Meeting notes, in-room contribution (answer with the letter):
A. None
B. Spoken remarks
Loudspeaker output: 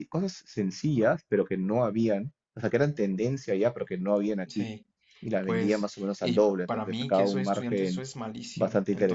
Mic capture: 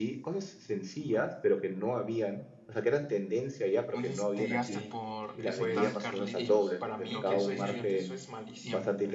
B